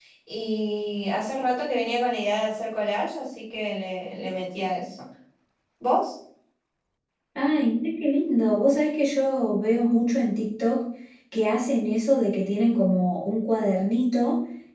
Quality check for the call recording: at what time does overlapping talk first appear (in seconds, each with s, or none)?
none